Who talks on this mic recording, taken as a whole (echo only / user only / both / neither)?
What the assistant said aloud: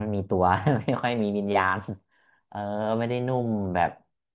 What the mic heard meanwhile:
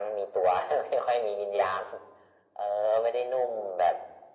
echo only